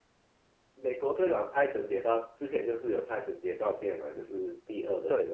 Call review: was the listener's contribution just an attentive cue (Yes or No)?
No